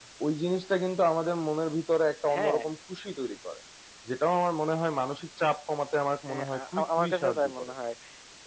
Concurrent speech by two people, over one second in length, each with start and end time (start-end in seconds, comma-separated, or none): 6.3-7.7